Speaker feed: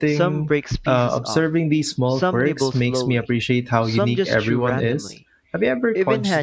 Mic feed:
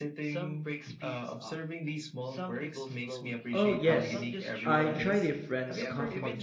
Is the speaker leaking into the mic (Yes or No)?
Yes